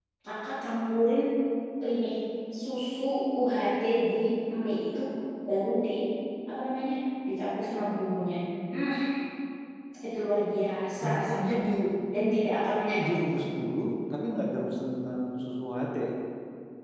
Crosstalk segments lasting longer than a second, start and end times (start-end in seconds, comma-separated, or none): none